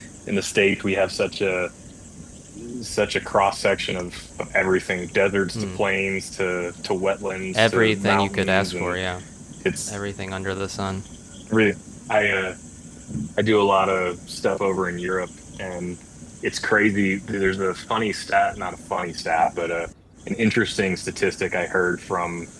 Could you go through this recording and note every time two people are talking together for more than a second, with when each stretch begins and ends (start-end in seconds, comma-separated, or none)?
7.5-9.0